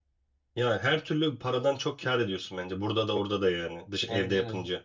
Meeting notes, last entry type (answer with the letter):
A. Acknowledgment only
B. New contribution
B